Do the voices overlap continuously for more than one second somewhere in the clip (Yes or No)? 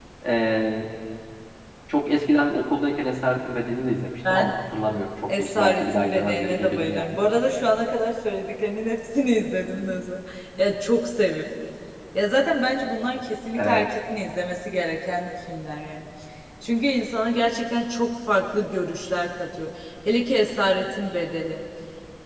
Yes